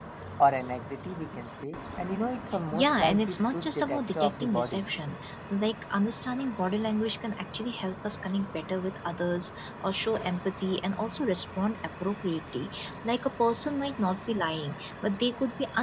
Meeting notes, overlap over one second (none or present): present